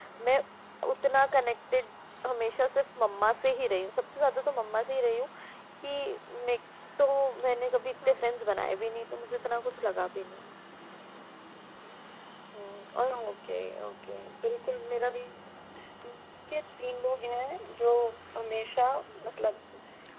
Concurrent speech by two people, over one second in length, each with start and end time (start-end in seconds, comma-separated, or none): none